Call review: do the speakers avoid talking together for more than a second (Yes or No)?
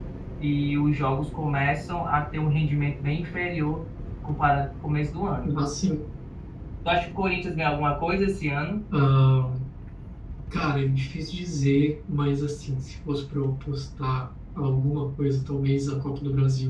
Yes